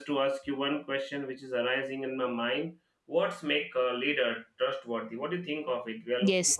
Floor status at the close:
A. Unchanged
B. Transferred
B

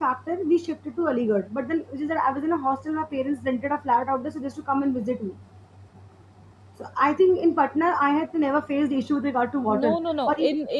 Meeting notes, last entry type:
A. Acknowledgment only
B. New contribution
B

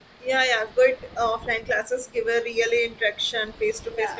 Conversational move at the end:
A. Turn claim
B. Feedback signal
B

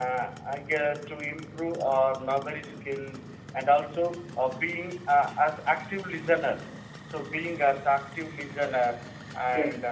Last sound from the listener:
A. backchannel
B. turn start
A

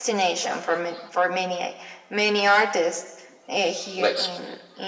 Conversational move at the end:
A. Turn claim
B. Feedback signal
B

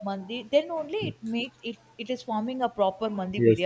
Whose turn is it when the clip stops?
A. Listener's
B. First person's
A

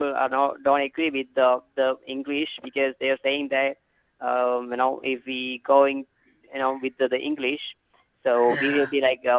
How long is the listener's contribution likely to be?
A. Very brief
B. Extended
A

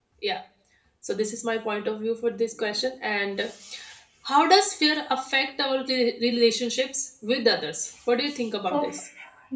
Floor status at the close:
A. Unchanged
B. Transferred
B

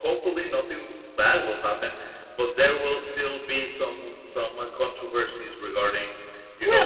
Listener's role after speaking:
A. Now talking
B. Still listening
A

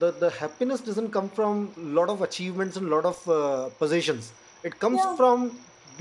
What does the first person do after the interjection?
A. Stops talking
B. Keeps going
B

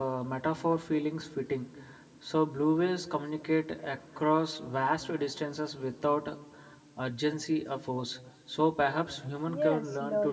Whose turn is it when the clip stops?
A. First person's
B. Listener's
B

